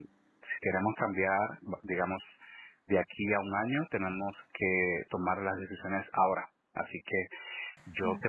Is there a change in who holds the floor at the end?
No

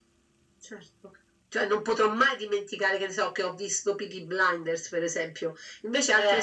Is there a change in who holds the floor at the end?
No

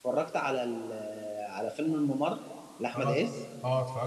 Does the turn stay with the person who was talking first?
No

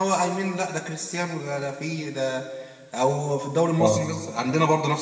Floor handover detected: No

